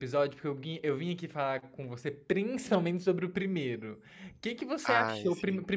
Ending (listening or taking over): listening